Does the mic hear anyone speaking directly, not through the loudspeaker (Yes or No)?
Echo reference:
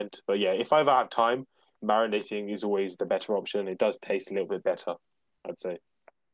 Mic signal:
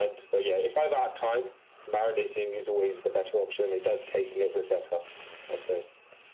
No